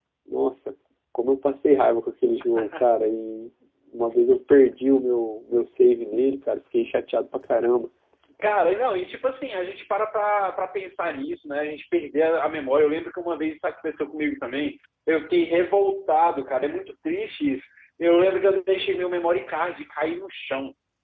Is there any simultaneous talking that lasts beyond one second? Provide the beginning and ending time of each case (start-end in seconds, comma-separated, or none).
none